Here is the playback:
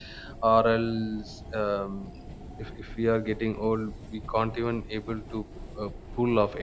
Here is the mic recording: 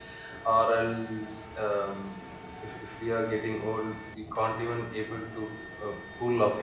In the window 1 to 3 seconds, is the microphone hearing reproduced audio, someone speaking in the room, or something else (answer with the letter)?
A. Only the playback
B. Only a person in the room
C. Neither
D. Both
A